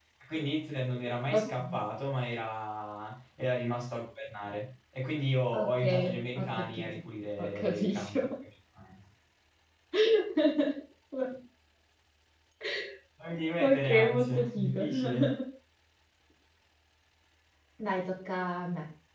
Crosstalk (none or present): present